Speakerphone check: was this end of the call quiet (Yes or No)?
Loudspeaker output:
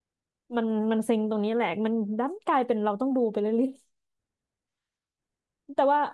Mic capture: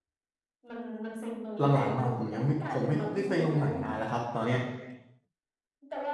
No